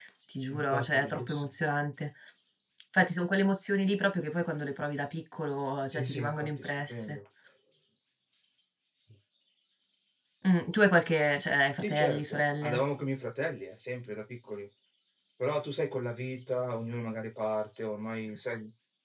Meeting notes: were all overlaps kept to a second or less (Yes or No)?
No